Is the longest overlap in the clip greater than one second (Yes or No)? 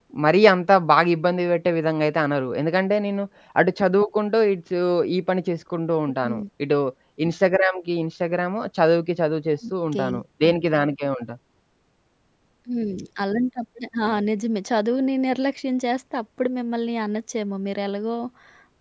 No